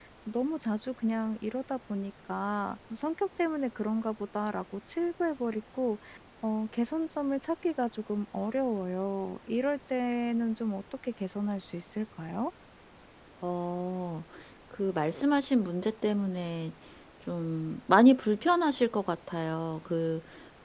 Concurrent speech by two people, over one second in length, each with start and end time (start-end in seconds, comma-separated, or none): none